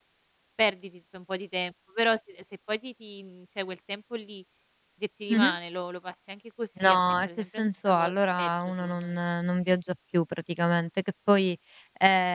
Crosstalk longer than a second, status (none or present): present